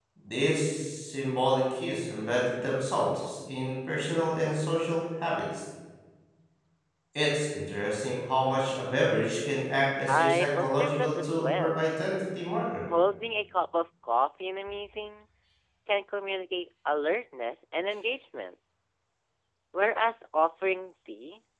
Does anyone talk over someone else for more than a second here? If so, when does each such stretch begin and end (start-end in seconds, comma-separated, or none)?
10.1-11.8